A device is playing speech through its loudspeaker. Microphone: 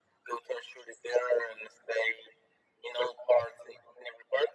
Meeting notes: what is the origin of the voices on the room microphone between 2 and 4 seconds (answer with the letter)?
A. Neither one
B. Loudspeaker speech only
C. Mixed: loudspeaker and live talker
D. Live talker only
B